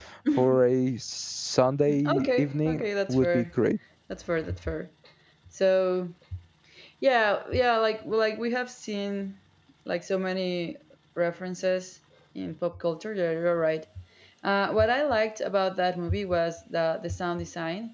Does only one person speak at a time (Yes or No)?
No